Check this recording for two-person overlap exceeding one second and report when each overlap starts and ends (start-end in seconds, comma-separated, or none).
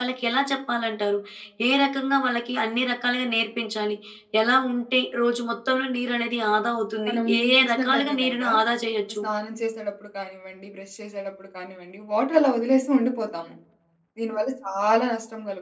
7.1-8.4